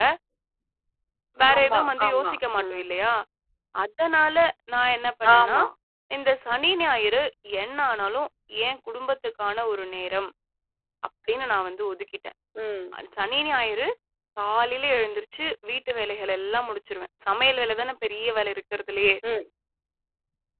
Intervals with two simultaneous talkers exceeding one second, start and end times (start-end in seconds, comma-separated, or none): 1.6-2.8